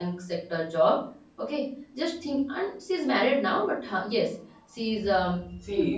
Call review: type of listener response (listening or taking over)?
taking over